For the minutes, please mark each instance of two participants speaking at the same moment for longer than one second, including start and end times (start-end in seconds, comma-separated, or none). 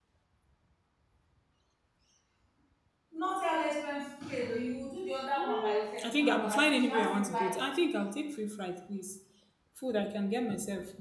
5.4-7.5